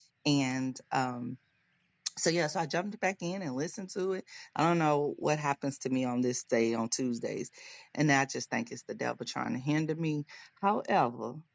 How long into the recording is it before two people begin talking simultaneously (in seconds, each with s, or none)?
none